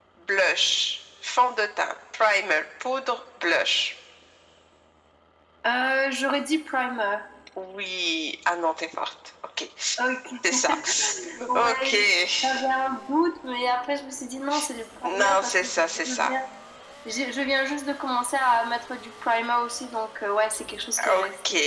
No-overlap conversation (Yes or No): No